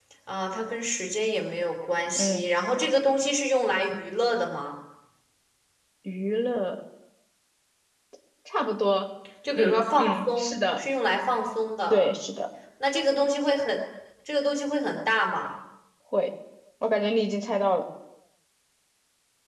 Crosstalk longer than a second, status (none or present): present